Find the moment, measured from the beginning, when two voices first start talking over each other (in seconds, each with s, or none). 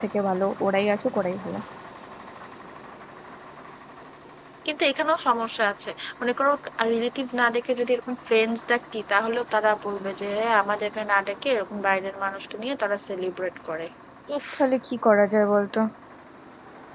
none